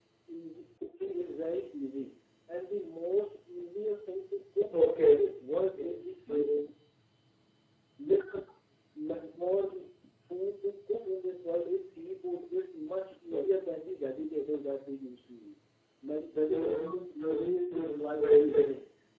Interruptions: present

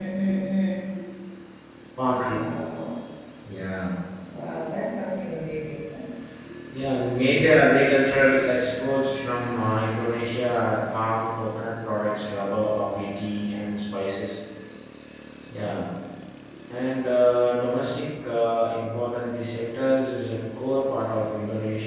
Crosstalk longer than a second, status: none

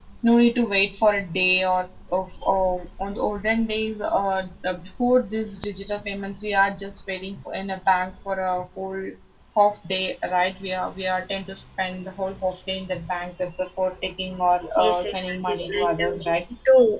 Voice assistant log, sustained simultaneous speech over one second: present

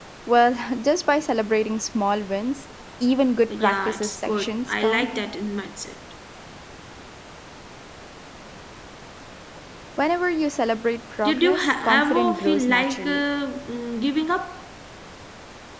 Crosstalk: present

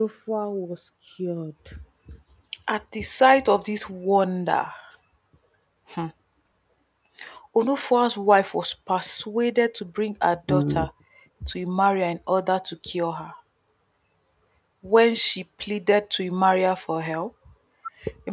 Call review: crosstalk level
none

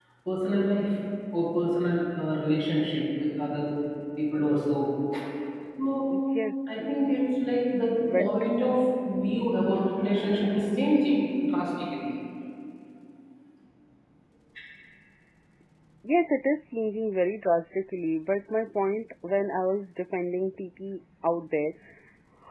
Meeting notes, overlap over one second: none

